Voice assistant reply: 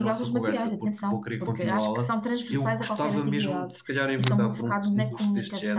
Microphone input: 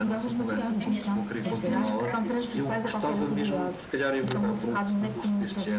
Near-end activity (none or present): present